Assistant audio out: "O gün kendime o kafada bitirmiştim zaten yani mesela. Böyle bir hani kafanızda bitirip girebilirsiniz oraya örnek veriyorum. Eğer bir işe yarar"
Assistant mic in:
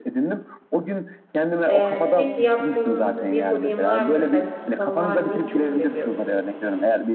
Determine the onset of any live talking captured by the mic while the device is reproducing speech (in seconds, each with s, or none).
1.7 s